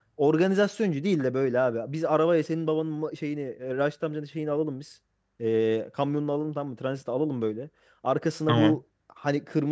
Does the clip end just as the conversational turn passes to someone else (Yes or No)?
No